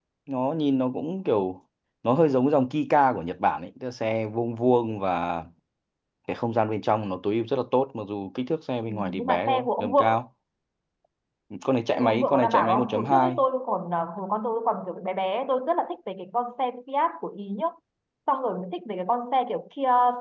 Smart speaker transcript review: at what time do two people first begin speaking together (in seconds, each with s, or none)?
8.9 s